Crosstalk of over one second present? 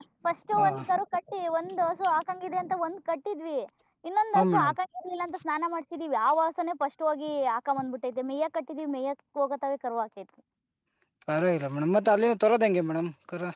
No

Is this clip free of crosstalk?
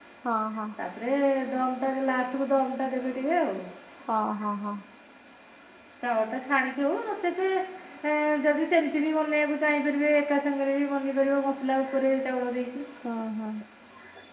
Yes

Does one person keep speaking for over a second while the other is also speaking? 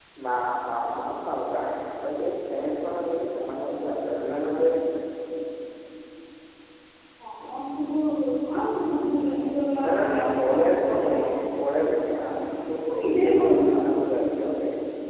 Yes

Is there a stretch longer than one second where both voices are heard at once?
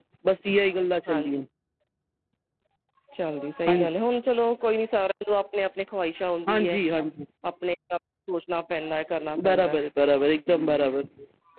No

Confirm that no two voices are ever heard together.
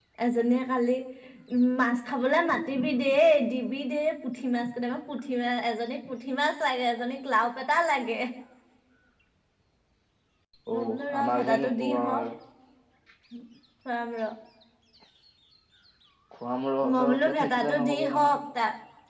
No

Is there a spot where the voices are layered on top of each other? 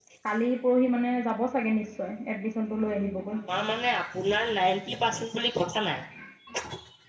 No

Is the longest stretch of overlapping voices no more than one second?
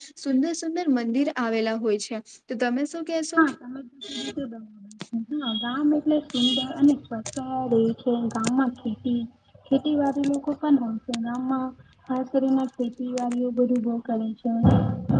Yes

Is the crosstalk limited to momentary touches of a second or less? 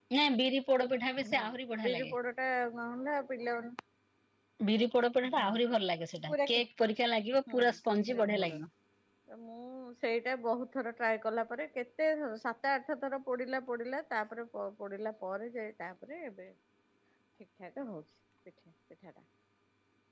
Yes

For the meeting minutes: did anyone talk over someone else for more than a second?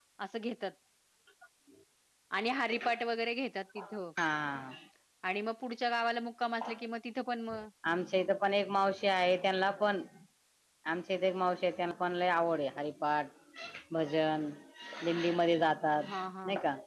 No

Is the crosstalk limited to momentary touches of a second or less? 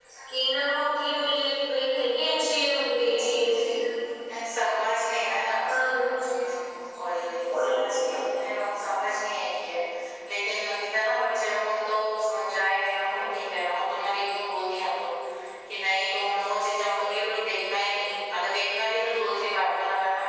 Yes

